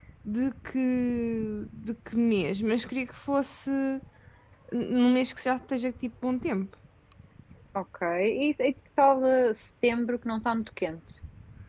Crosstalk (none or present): none